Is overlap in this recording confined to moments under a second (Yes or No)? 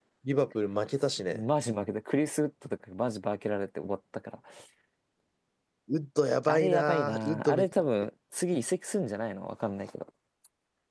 No